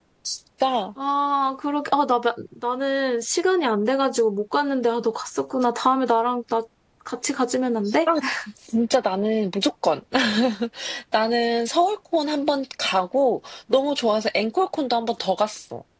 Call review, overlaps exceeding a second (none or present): none